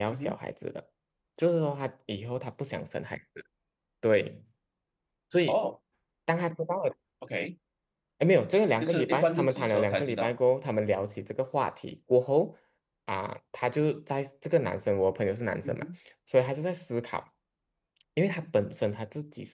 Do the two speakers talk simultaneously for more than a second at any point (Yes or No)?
Yes